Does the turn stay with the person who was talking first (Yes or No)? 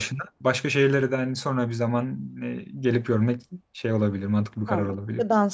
No